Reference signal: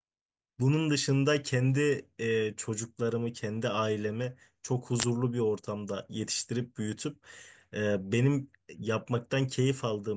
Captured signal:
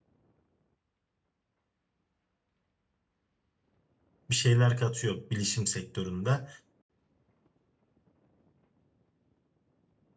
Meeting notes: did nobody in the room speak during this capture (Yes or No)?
No